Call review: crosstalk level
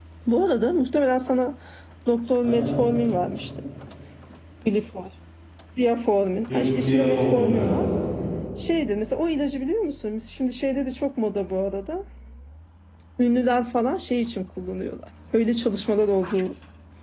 present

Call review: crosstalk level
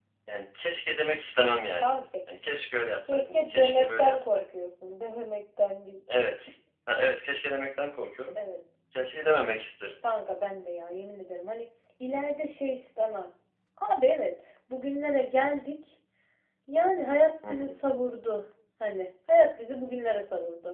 present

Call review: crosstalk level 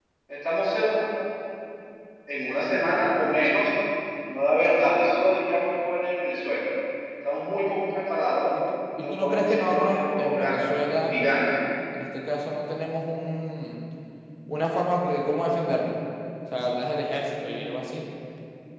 present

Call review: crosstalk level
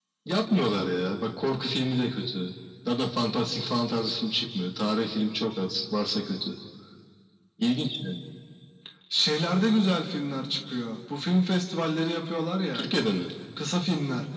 none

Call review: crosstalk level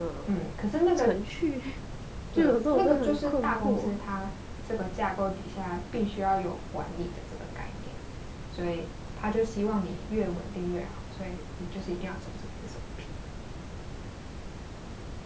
present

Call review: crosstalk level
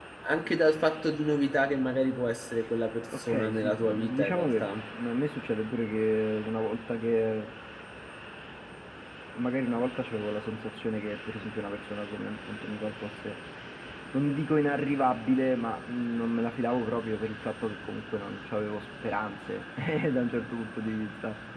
present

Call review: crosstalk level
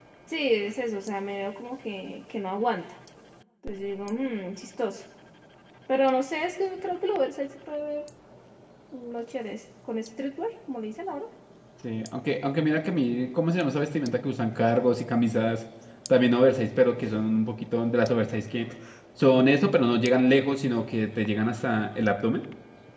none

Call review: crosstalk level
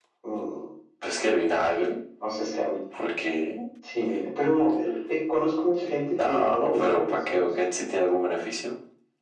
present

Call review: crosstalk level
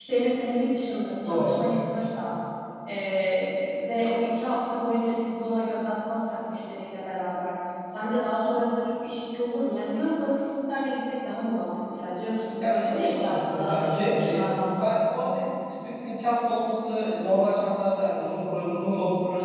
present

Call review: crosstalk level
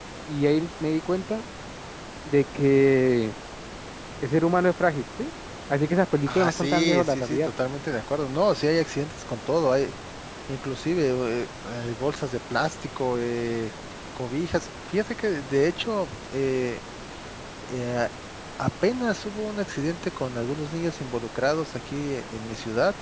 present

